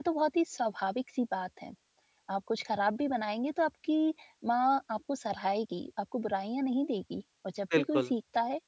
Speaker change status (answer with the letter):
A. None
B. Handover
A